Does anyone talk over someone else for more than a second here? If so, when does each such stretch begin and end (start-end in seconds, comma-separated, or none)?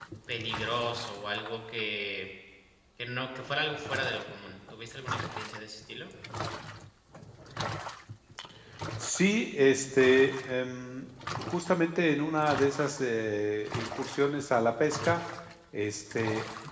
none